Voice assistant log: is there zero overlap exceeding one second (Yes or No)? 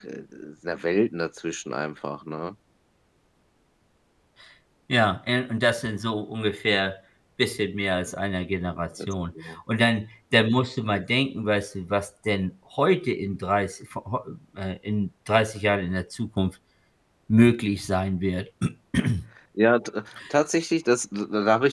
Yes